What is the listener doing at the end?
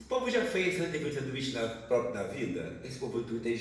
listening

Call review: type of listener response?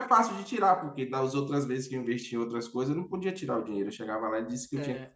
listening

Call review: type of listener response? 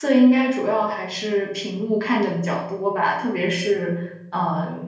listening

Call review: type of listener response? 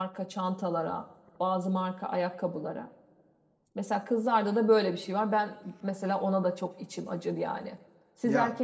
listening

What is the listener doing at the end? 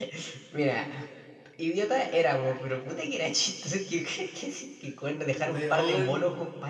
listening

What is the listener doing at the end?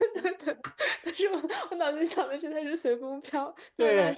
taking over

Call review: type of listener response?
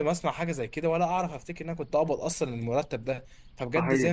listening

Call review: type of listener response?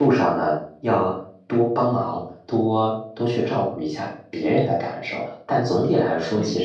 listening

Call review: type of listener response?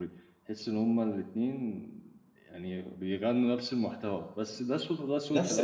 taking over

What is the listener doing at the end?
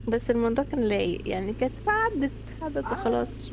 taking over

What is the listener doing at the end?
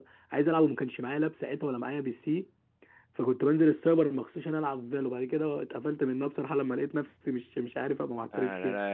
taking over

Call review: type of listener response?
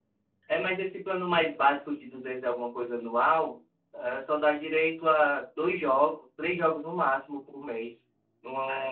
listening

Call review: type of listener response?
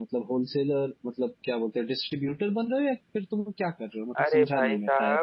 taking over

